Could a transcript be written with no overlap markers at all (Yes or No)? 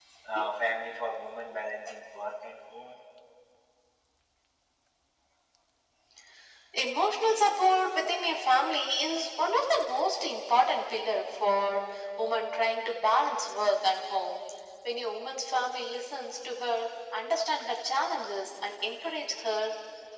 Yes